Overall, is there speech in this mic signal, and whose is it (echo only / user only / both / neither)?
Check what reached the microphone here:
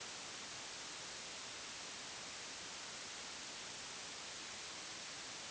neither